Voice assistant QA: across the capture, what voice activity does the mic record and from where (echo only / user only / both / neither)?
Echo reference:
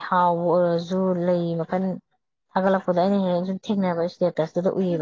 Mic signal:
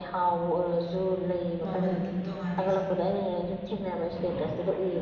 both